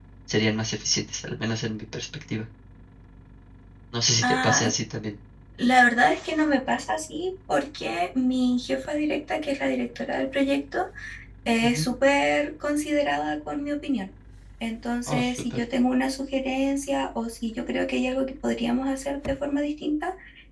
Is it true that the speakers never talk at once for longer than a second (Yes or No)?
Yes